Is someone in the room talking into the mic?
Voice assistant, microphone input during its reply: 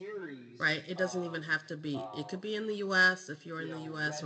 Yes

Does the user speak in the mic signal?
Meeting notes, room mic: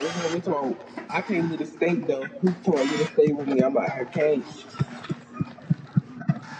No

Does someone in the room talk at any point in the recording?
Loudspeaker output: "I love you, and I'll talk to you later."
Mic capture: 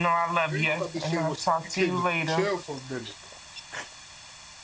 Yes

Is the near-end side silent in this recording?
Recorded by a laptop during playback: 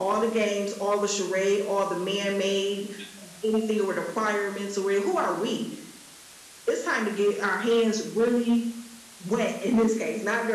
Yes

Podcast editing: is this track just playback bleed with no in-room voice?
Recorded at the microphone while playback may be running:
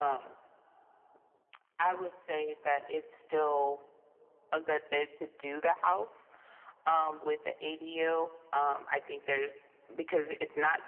Yes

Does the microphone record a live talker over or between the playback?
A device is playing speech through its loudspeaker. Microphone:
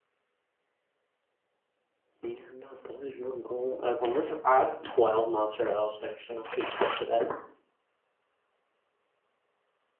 Yes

